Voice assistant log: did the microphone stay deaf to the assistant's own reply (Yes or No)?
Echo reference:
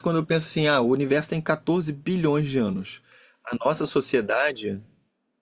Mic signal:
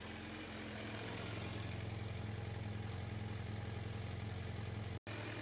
Yes